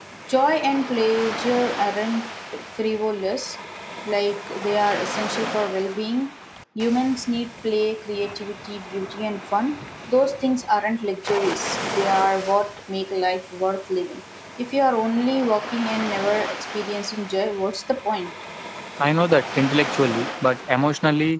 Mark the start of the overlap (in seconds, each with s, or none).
none